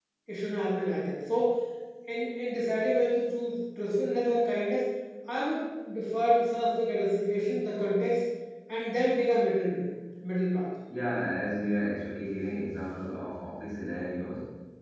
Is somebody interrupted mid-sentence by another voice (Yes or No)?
No